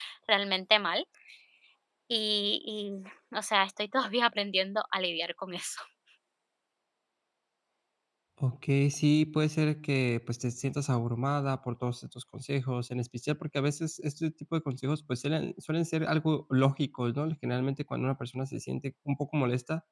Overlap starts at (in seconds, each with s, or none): none